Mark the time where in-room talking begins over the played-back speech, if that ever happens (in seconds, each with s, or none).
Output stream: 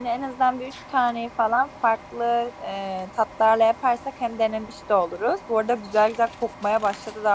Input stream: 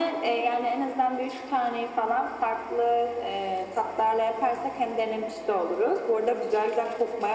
none